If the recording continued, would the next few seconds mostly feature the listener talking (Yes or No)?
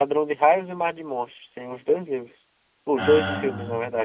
No